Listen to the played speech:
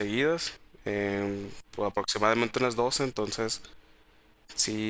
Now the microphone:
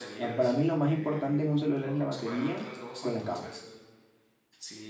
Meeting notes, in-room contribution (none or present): present